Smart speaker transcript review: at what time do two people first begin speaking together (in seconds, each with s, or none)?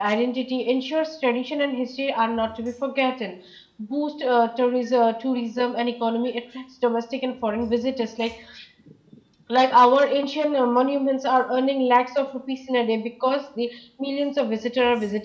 none